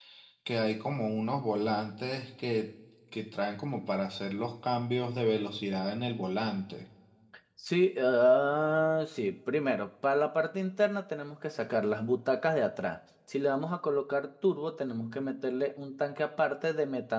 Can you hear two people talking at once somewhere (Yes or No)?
No